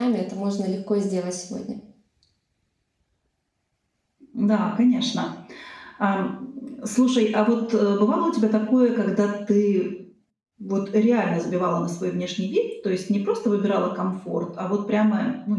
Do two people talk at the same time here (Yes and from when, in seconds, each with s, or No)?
No